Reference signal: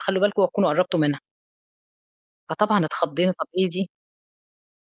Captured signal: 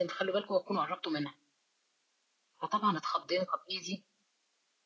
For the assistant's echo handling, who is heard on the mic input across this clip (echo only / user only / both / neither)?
echo only